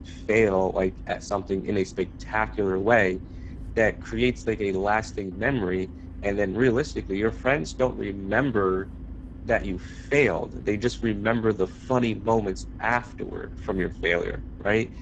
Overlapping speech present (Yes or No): No